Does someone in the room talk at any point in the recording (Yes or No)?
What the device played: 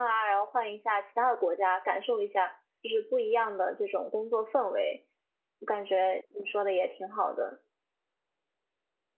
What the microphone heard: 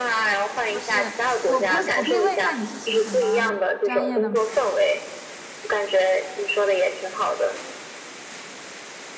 Yes